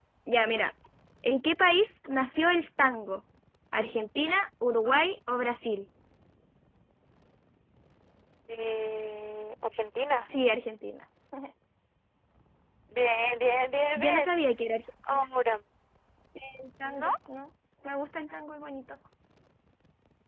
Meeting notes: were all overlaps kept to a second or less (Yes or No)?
Yes